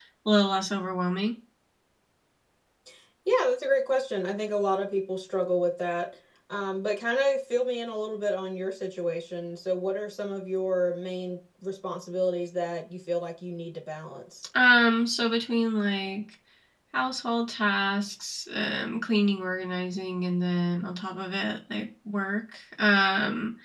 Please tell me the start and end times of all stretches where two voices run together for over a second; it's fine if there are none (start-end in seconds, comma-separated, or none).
none